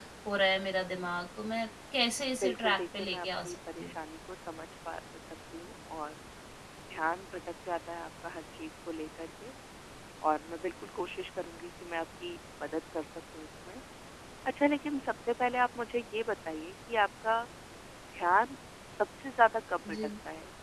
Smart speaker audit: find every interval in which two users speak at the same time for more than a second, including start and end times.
2.4-3.9

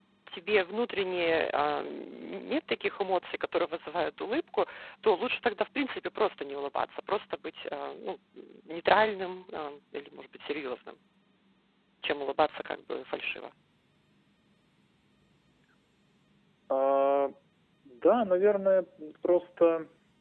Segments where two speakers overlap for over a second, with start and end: none

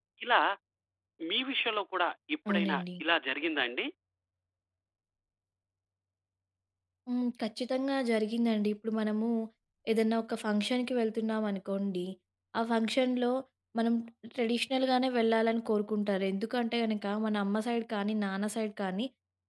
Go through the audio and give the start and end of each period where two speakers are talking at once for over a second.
none

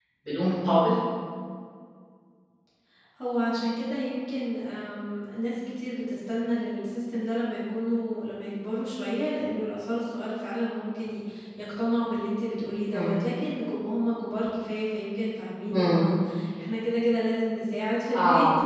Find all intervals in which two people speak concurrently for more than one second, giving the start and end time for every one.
none

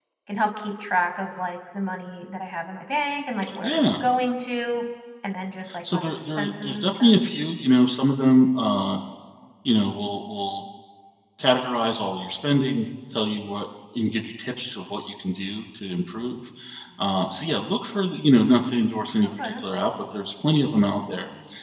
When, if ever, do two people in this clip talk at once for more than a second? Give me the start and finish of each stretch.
5.9-7.2

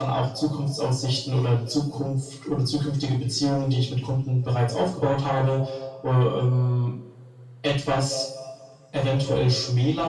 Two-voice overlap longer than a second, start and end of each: none

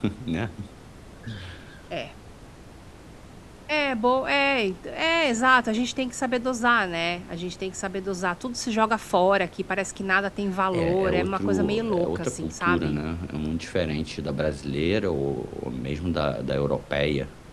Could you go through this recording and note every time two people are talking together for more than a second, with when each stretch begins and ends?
10.7-13.0

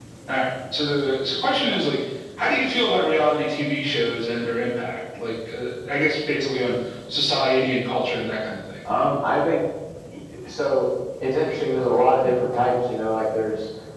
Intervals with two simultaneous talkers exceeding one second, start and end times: none

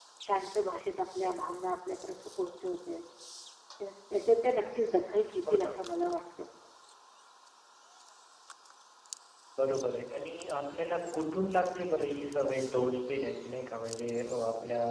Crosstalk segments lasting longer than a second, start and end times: none

